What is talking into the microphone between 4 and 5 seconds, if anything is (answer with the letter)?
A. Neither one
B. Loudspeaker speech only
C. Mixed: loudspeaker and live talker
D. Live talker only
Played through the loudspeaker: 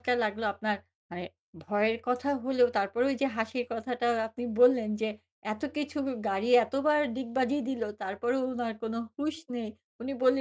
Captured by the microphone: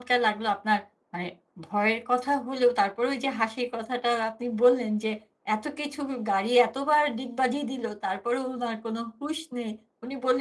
B